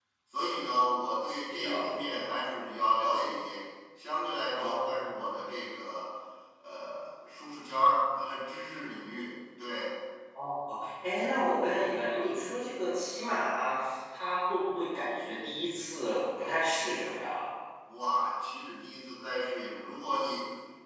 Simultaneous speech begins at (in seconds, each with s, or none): 1.4 s